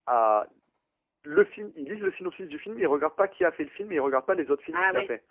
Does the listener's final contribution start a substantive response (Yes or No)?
Yes